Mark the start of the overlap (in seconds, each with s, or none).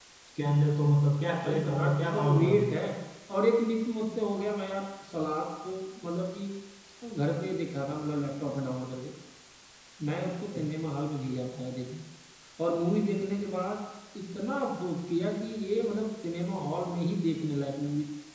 1.4 s